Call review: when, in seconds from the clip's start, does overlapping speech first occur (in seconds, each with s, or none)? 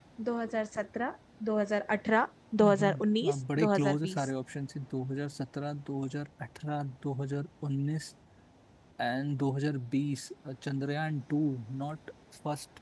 2.6 s